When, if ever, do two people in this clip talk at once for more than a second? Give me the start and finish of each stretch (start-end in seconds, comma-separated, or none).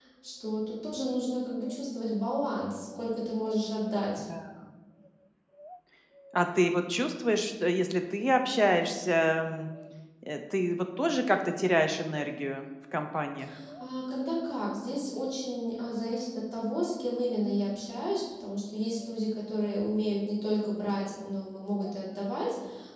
none